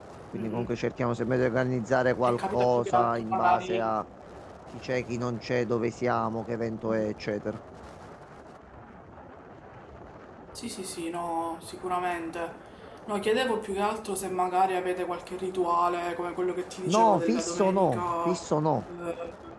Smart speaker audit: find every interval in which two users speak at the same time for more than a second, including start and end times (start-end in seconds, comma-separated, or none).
2.2-4.0, 16.9-18.4